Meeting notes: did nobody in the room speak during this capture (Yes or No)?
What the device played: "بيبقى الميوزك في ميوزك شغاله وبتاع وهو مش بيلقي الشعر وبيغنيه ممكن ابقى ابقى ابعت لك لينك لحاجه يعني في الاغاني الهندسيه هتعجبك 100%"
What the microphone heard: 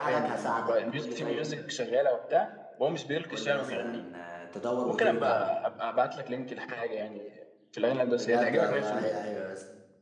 No